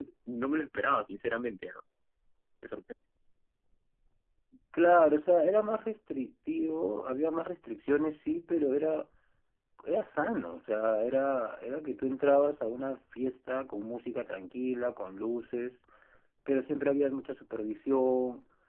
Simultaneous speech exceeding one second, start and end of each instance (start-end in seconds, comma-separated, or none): none